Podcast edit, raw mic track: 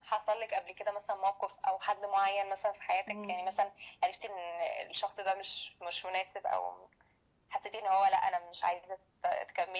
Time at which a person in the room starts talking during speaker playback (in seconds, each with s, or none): 3.0 s